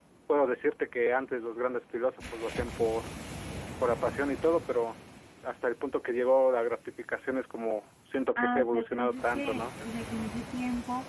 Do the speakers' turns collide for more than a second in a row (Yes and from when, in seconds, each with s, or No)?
Yes, from 8.4 s